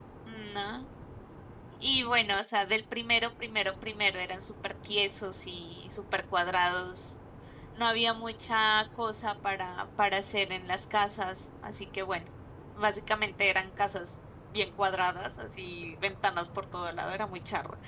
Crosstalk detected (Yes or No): No